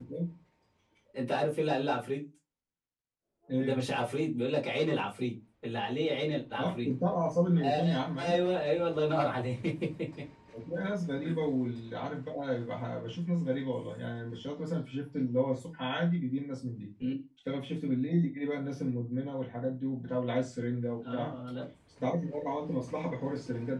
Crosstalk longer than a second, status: none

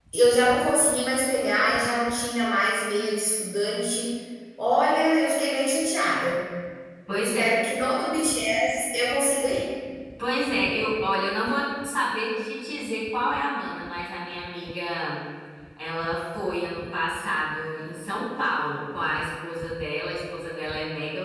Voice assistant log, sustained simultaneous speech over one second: none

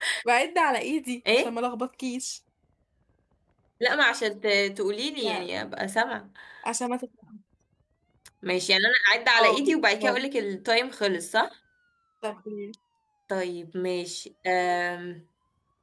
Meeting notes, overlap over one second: none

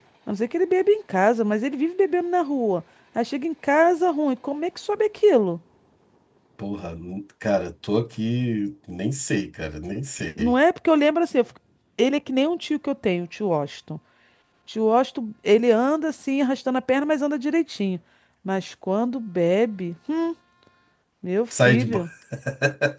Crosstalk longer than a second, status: none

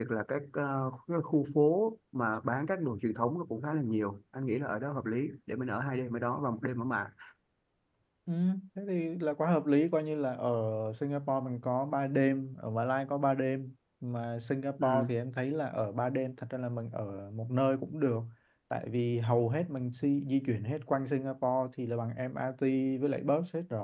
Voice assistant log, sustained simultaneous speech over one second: none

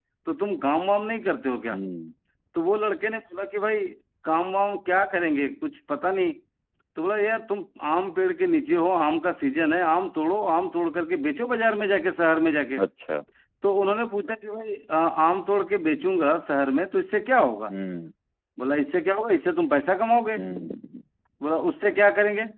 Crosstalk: none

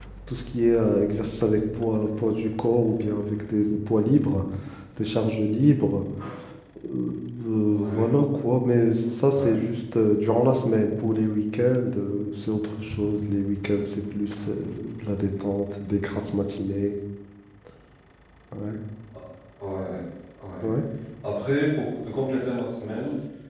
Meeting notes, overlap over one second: none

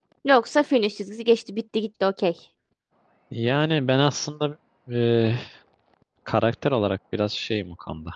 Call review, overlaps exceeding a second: none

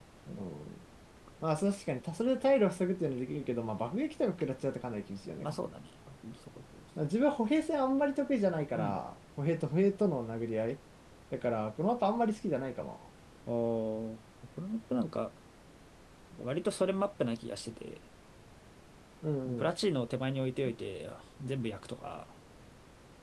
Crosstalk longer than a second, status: none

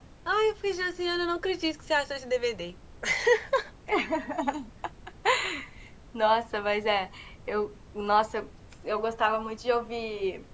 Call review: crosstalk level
none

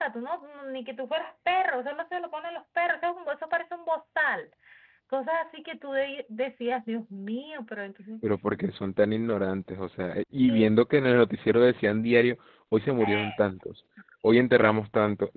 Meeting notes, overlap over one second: none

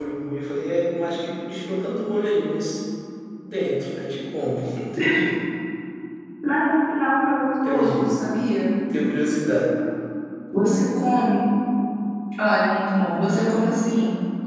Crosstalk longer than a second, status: none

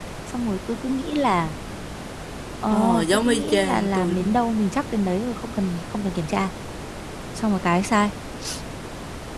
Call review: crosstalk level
present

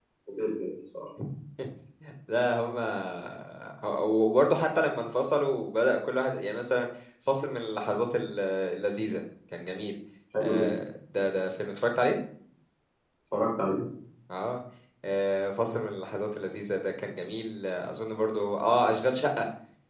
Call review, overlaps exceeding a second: none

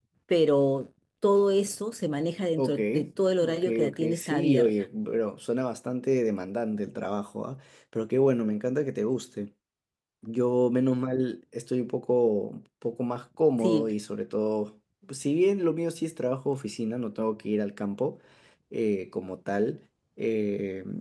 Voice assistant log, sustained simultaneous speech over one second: present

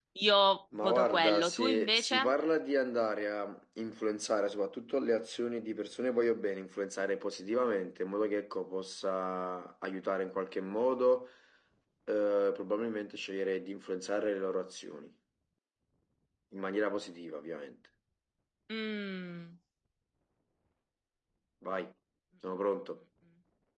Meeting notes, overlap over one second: present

